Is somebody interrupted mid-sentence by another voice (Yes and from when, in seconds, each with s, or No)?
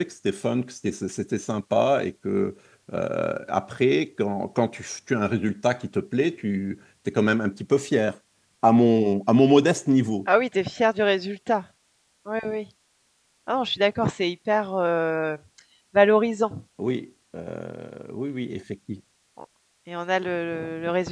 No